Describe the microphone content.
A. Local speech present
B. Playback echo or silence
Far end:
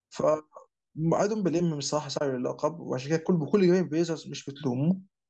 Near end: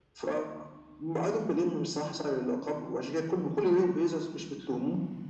B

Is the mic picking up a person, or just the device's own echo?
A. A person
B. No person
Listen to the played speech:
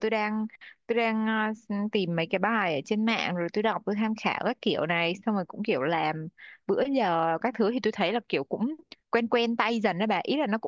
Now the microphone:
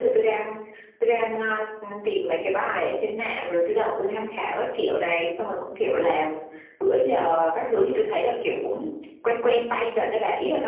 B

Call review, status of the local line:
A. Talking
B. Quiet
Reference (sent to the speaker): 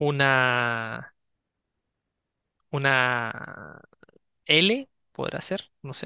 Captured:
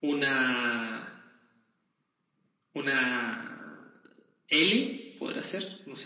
B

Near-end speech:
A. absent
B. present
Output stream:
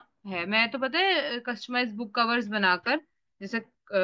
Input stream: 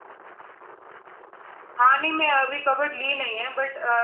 B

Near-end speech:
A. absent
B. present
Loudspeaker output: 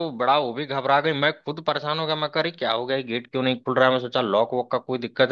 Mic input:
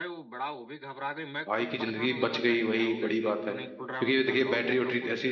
B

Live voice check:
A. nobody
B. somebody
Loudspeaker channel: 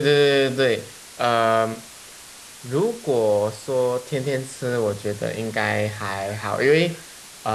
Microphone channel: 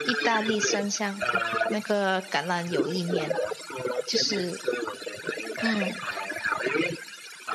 B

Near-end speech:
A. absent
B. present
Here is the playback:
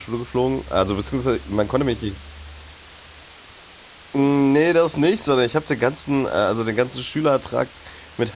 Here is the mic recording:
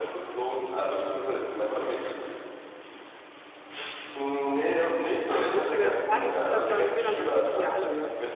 B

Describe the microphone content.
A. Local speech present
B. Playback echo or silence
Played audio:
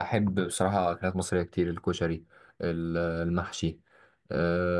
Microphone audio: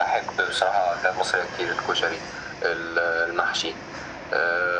B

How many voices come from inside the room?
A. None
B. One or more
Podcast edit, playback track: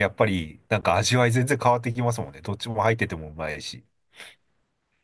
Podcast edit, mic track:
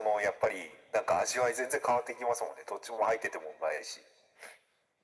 A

